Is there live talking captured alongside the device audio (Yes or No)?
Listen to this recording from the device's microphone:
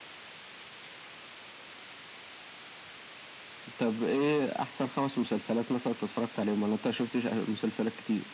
No